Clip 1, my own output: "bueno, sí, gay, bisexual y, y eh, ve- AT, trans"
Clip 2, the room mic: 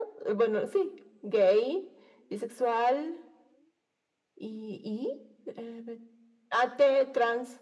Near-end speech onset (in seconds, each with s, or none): none